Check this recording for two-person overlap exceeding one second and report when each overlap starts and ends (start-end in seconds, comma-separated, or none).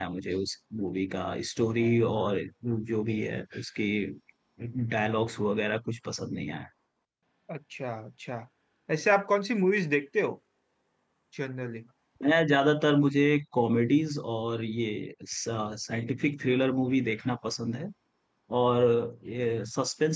none